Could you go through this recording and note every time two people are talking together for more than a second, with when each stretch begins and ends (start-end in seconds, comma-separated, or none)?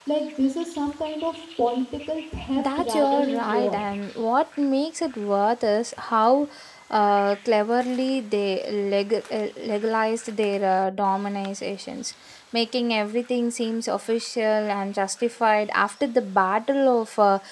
2.5-3.8